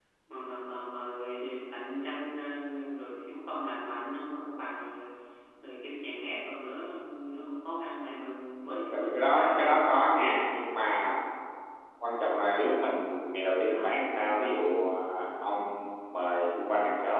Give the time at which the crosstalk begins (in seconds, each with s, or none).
8.6 s